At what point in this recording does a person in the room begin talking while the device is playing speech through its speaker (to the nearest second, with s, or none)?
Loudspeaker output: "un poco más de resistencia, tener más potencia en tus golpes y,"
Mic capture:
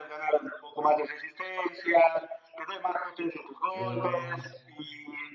4 s